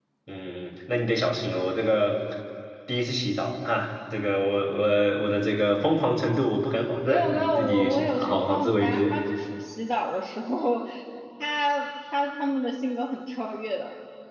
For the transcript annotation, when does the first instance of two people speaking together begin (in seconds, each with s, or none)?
7.0 s